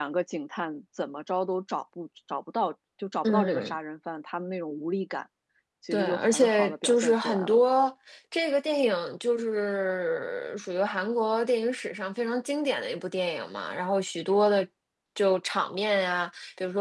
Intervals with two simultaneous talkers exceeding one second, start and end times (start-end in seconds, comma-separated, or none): 5.9-7.6